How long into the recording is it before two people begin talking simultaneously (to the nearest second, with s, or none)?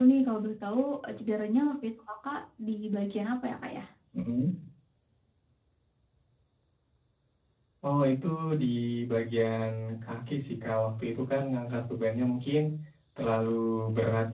none